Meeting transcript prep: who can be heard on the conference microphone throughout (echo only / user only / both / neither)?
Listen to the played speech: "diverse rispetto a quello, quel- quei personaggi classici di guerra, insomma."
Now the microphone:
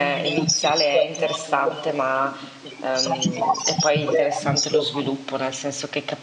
both